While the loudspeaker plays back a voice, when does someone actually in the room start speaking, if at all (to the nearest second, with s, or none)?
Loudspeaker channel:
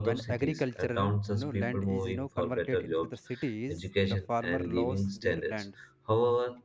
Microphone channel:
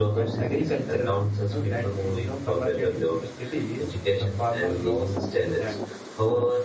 none